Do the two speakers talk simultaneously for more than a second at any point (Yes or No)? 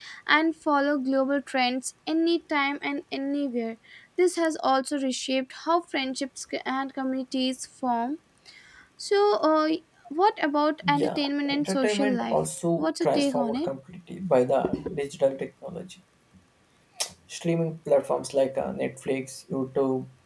Yes